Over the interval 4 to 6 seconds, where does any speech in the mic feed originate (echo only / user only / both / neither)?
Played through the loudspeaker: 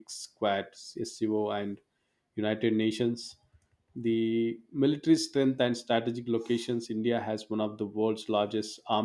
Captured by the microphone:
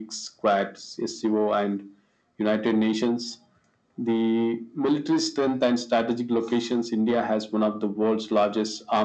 echo only